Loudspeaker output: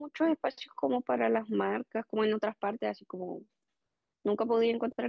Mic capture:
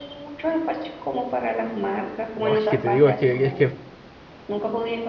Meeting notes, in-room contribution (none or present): present